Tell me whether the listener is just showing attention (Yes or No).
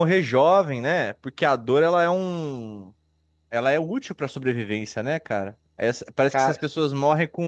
Yes